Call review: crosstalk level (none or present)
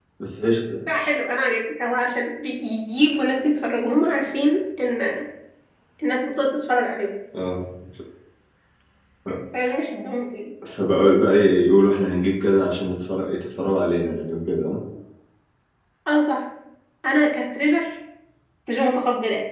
none